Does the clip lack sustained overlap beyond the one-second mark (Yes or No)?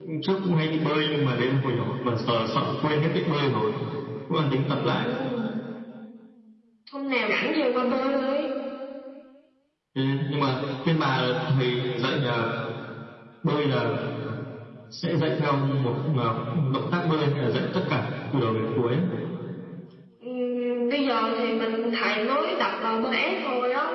Yes